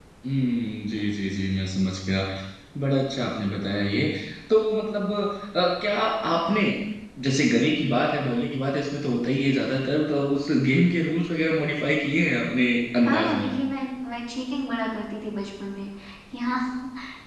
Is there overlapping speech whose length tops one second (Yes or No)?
No